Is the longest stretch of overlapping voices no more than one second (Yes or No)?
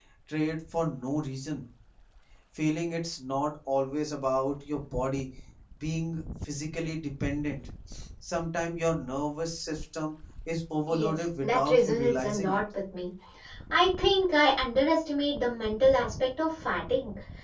No